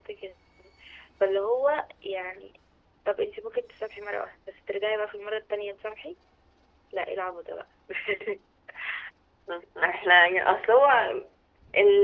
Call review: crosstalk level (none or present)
none